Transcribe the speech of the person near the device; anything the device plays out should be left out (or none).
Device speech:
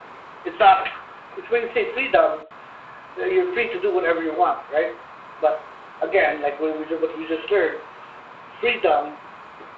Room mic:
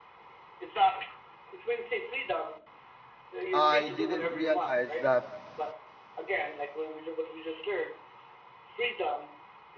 I didn't realize that